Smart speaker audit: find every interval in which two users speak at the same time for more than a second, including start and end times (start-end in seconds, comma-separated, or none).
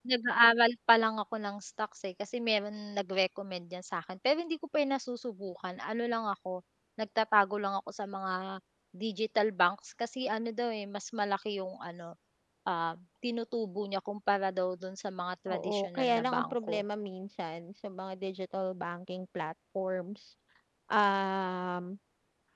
15.5-16.8